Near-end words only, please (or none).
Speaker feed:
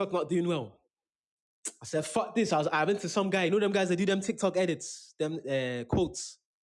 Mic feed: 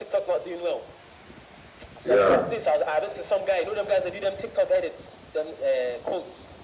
Yeah.